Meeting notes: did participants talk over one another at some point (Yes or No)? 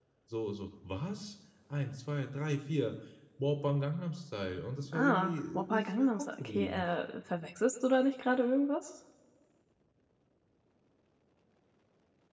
Yes